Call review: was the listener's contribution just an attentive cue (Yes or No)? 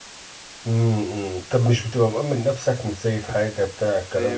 No